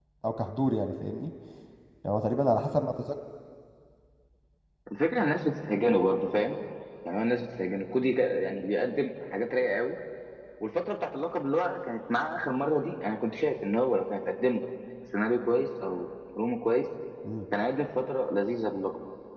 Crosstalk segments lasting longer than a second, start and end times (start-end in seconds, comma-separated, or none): none